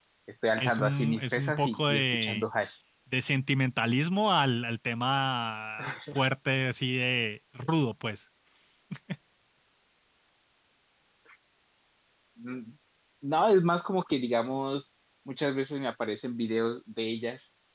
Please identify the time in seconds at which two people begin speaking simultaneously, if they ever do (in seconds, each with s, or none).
0.6 s